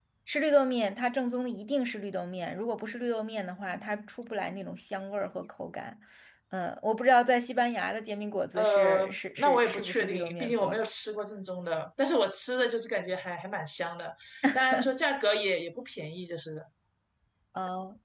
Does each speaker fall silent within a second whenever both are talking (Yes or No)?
No